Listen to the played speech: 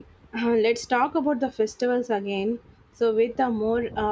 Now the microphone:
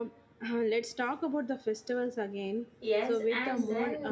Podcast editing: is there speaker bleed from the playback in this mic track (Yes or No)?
Yes